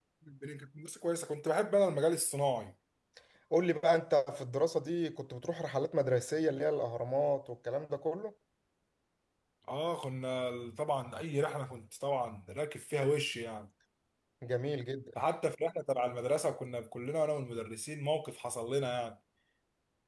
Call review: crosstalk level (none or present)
none